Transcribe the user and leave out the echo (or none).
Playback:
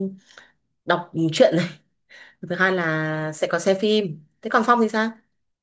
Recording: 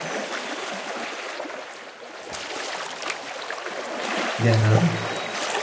dạ.